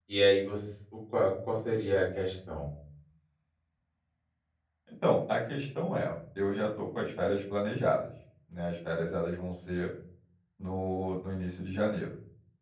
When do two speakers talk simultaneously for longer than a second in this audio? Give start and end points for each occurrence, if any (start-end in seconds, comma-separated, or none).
none